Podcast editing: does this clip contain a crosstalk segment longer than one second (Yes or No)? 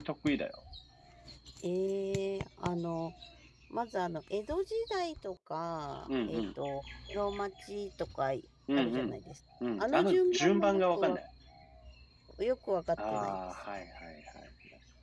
Yes